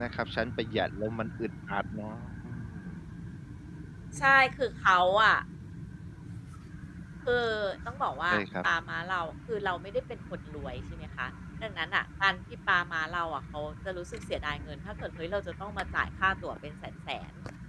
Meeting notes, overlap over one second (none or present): none